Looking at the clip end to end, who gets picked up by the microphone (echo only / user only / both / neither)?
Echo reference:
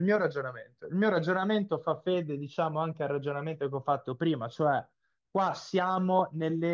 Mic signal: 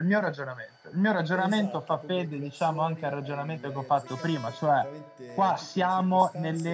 both